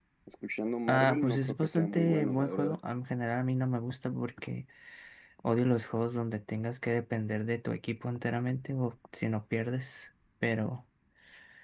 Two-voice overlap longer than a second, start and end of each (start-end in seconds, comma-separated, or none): 0.9-2.8